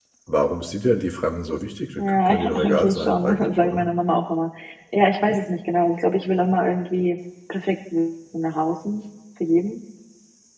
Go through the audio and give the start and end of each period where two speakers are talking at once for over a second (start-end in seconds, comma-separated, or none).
2.0-3.9